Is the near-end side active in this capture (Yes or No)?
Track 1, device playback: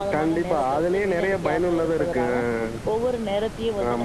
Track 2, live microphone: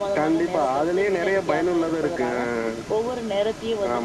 No